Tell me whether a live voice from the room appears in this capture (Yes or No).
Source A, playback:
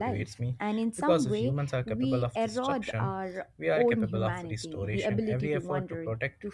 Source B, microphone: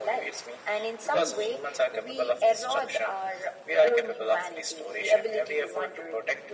No